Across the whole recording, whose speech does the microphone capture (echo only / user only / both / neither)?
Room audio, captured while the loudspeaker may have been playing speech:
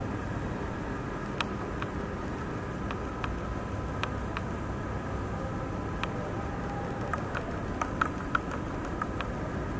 neither